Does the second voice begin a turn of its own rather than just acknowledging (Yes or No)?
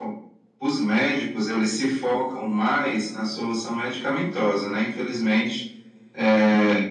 No